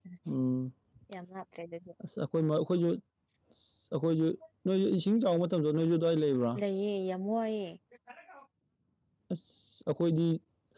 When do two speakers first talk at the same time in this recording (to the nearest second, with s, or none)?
none